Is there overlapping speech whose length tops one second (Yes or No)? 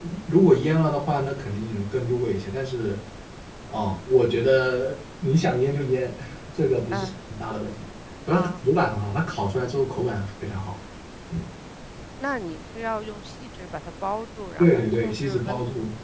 Yes